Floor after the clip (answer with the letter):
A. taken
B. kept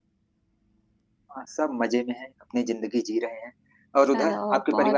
A